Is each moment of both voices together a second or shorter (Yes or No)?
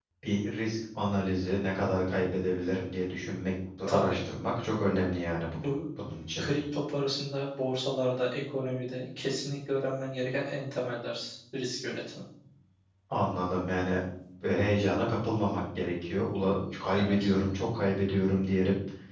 Yes